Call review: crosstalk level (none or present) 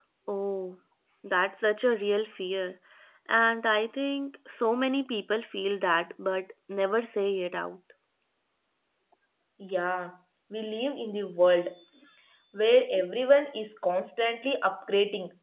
none